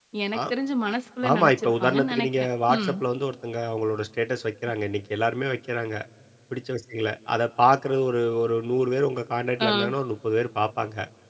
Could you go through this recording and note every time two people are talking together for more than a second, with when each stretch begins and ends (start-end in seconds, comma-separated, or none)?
1.3-2.9